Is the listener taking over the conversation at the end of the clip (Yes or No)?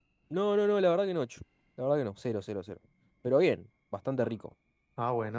Yes